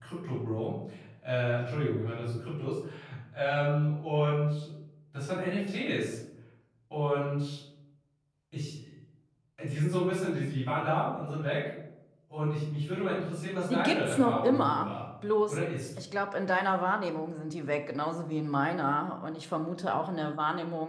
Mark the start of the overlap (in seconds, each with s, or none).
13.7 s